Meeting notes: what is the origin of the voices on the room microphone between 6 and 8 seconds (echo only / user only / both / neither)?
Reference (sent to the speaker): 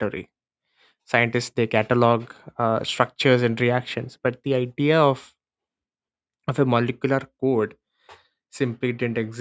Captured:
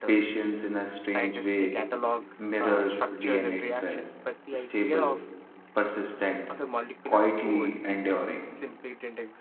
both